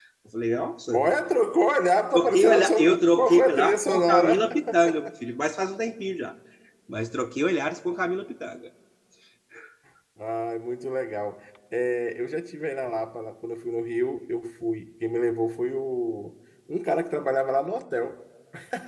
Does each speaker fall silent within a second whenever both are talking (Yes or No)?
No